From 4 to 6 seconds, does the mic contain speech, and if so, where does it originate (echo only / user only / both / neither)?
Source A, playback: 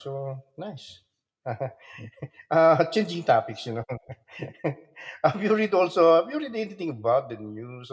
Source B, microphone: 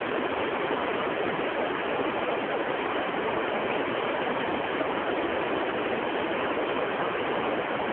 neither